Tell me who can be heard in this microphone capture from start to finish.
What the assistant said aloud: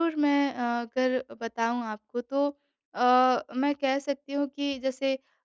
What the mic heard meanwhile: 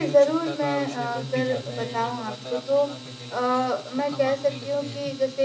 both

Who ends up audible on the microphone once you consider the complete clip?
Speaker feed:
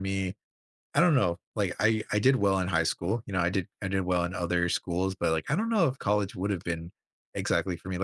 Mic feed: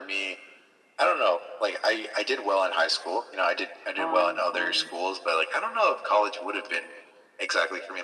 both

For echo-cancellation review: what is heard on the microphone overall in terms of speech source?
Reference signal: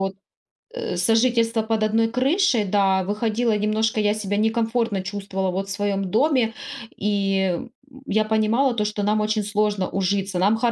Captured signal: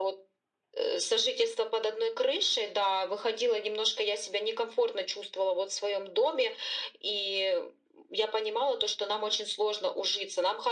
echo only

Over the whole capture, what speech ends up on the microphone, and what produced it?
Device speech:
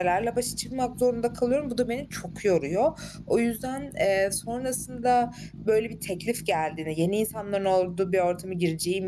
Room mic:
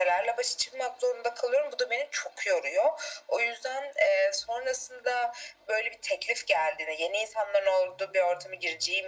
echo only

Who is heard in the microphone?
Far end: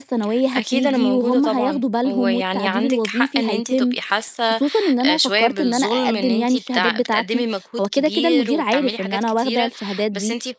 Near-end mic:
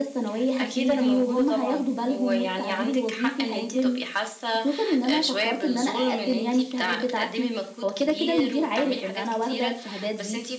echo only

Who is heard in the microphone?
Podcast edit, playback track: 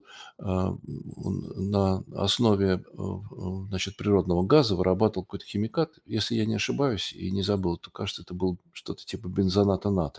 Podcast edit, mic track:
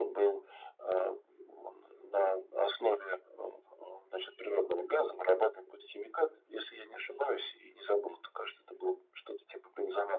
echo only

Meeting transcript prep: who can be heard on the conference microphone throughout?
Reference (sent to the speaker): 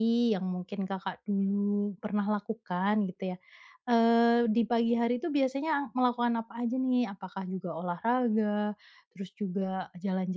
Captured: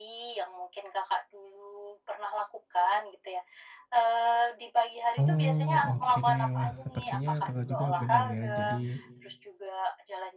both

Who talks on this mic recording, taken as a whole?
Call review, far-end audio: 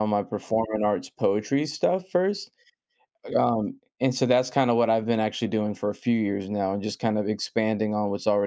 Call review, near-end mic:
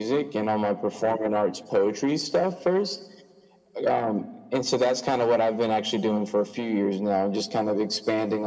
echo only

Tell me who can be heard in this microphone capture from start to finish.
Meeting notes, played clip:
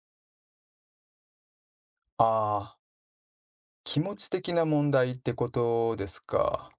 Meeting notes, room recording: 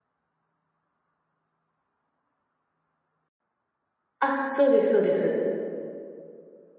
user only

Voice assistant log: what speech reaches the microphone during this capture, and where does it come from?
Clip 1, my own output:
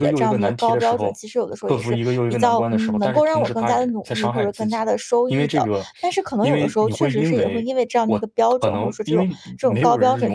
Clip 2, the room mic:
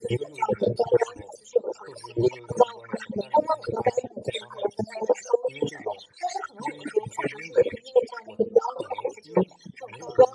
echo only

